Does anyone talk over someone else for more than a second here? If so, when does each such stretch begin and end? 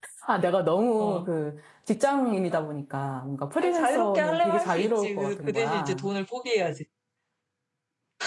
3.6-6.1

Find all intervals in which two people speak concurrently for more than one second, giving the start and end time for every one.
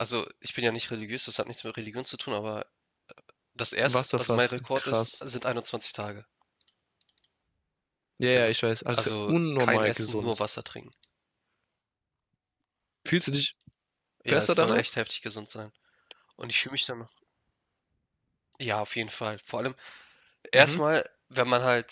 3.9-5.2, 8.9-10.4

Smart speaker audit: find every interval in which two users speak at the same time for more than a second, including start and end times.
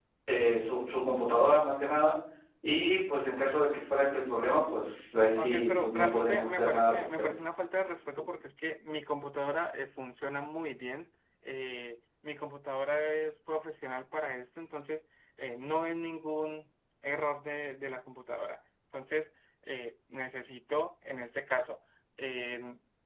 5.3-7.3

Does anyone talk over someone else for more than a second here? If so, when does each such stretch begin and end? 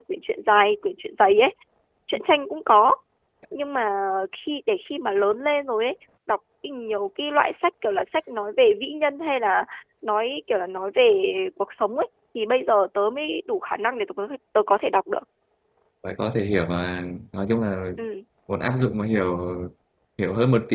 none

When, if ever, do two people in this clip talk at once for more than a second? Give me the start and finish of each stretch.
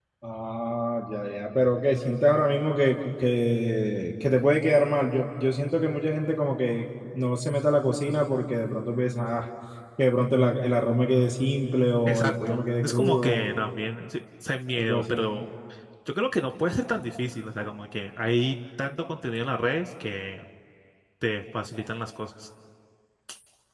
12.1-13.5

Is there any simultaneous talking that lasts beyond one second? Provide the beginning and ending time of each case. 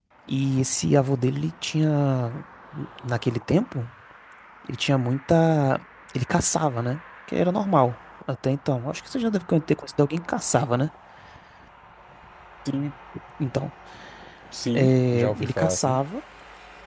14.8-16.0

